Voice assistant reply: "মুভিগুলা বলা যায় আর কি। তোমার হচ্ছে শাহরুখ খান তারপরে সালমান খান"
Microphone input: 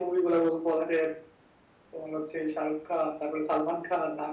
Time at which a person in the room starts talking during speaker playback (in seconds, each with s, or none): none